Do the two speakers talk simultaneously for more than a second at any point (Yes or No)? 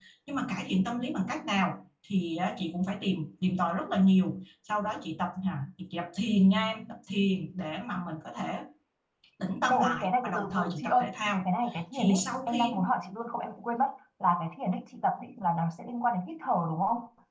Yes